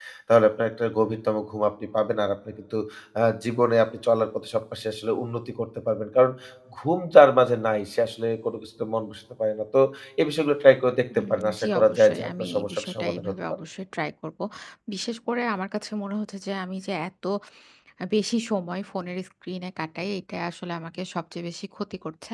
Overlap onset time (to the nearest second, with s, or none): 11 s